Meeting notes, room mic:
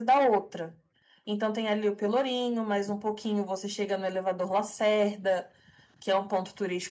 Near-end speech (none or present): none